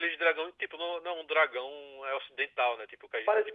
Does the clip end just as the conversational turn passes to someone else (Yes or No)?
Yes